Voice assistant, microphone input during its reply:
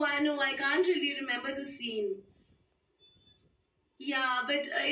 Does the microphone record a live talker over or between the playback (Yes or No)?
No